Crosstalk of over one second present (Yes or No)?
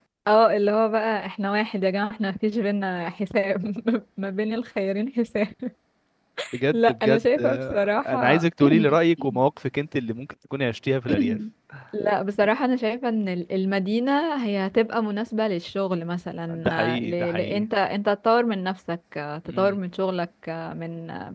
Yes